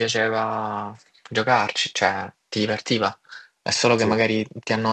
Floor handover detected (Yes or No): No